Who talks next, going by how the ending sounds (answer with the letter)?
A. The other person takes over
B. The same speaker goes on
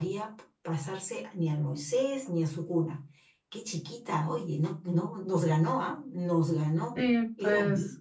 A